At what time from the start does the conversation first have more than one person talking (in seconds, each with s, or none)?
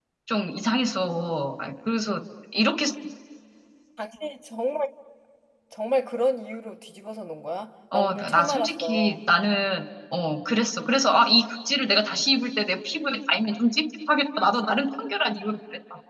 7.9 s